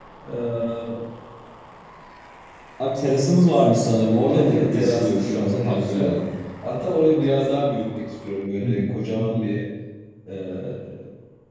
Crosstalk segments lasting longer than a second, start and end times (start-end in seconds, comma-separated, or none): 4.3-6.1